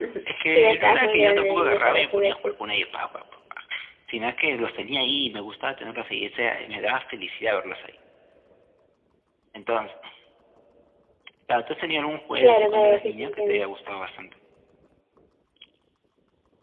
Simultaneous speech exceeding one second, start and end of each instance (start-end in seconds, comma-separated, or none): 0.5-2.5, 12.4-13.6